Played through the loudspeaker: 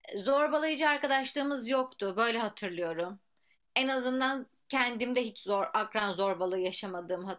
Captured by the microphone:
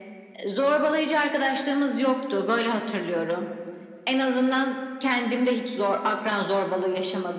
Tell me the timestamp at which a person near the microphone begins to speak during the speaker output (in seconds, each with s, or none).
none